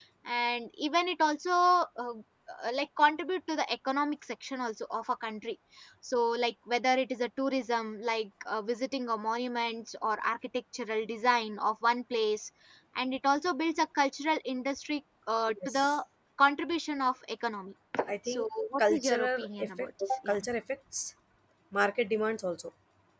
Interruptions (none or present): present